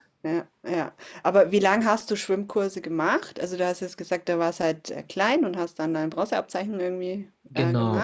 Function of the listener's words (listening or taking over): taking over